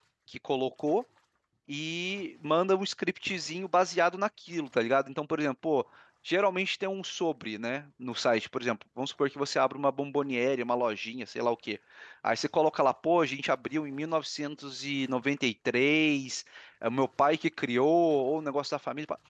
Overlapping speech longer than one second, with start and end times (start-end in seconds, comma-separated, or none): none